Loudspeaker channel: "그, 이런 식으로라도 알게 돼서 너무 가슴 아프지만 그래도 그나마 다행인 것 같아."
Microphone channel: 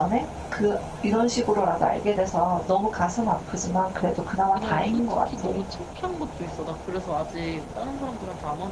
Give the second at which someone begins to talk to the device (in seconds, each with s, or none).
4.5 s